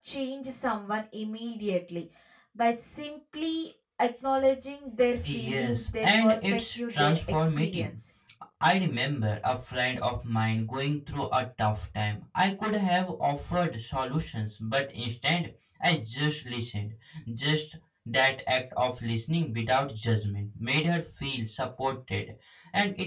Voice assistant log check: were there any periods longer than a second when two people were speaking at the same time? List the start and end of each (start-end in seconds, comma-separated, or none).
5.2-8.0